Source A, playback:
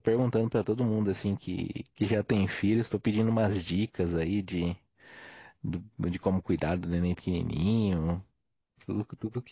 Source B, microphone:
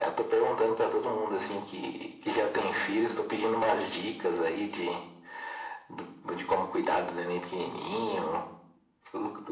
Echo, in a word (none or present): present